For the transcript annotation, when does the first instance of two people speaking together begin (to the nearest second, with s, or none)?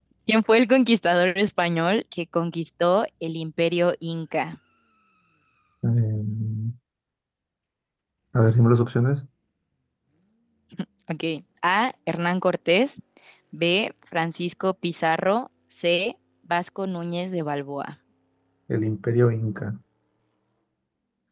none